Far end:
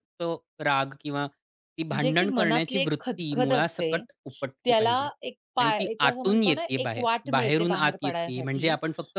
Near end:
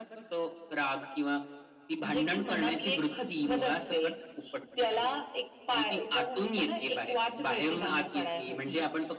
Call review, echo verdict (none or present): present